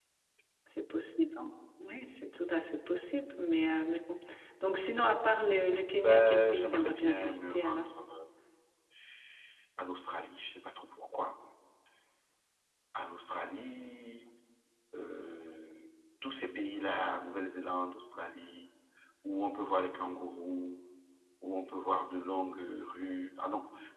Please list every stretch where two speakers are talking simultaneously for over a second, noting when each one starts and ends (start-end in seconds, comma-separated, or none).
6.0-7.8